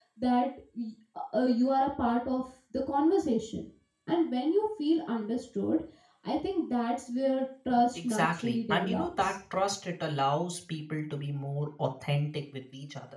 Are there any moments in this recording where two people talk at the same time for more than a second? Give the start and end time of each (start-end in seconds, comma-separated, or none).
8.0-9.3